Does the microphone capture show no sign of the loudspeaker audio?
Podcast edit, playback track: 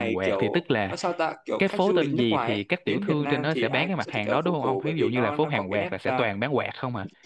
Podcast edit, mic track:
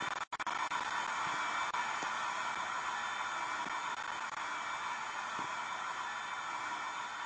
Yes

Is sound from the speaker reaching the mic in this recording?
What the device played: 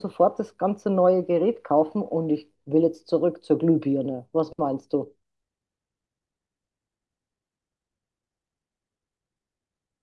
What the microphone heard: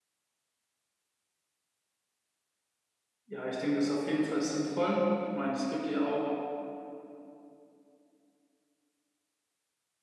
No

